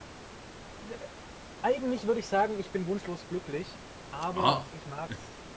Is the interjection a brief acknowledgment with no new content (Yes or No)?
Yes